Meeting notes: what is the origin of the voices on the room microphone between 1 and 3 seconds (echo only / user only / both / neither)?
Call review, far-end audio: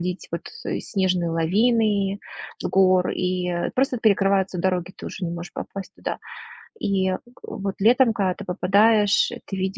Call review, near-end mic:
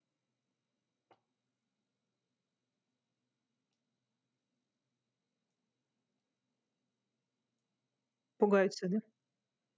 neither